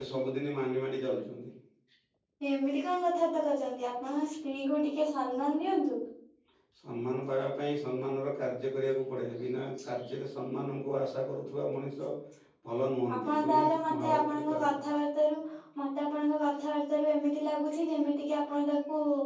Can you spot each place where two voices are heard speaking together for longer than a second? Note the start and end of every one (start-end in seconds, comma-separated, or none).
13.2-14.7